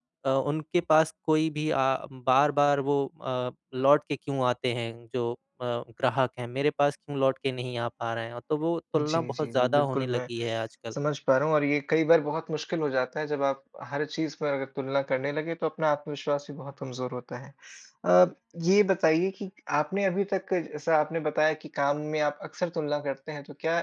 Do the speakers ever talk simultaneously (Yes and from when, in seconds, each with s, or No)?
Yes, from 8.9 s